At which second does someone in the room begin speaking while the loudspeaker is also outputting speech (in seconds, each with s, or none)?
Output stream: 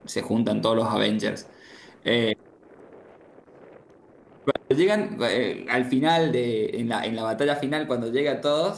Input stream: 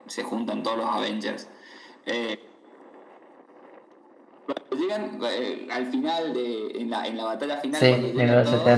7.7 s